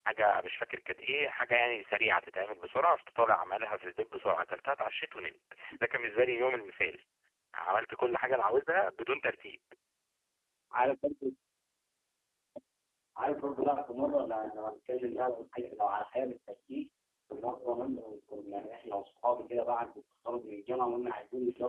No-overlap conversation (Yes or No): Yes